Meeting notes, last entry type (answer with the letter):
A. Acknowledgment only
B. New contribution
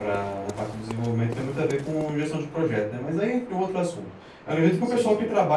A